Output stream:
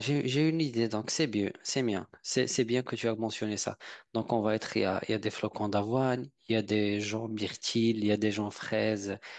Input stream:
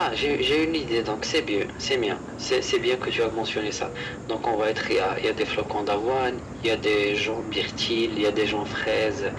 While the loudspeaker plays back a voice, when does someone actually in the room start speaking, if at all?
none

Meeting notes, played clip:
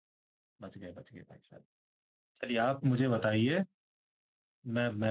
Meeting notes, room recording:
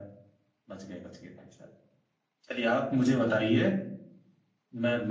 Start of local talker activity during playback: none

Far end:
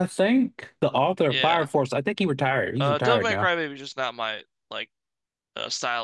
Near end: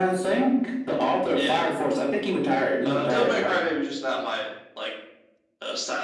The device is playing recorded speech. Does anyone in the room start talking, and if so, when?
none

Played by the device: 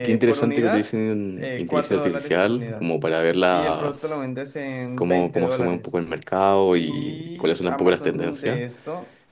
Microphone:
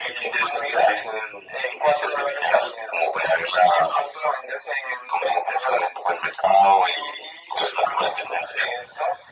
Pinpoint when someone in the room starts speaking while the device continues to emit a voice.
none

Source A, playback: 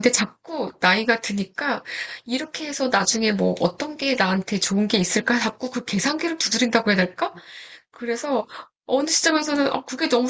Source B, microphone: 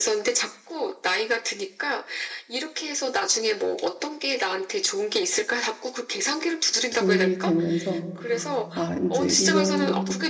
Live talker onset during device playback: 6.9 s

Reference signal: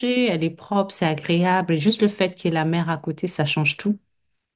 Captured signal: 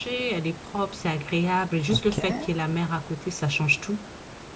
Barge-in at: 1.9 s

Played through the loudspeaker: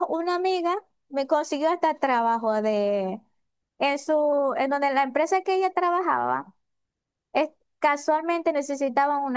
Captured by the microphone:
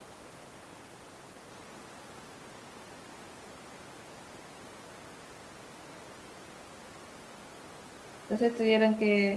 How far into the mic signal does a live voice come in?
8.2 s

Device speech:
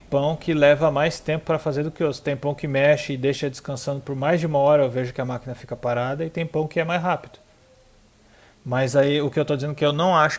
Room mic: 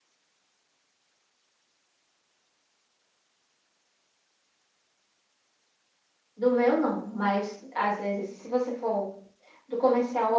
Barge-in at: 6.3 s

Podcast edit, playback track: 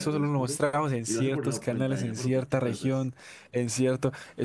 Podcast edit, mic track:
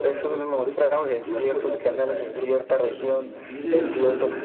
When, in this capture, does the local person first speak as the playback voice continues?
2.9 s

